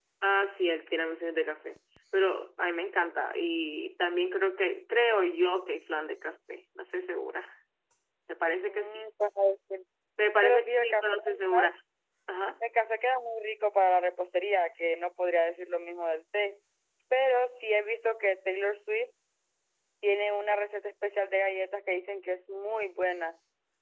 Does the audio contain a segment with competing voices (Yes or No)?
Yes